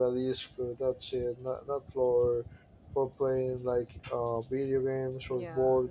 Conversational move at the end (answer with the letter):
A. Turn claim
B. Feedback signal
A